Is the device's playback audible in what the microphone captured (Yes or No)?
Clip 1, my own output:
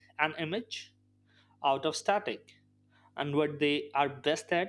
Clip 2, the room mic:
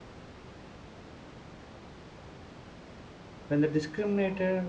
No